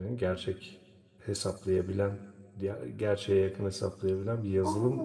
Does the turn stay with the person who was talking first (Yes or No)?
No